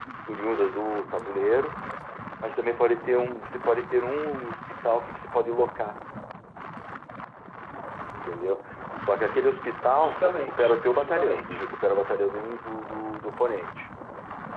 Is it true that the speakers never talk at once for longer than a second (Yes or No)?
No